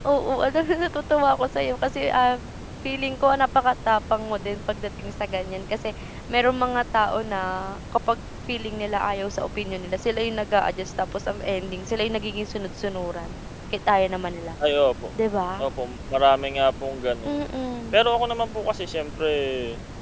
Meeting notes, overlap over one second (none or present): none